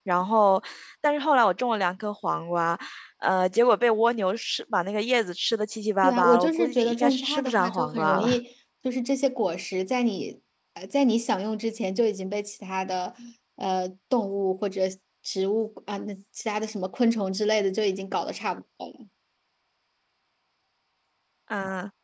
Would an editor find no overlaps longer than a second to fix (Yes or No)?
No